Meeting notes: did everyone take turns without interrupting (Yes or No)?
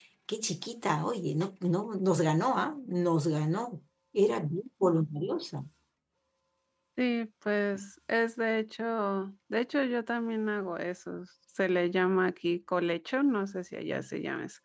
Yes